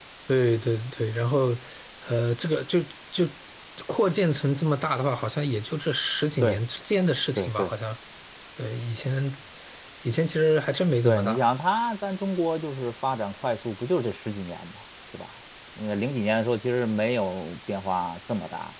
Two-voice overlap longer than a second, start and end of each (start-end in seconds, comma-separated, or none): none